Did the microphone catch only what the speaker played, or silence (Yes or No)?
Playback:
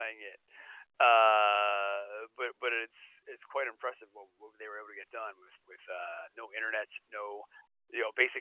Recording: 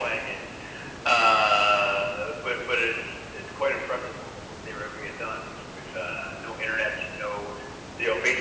Yes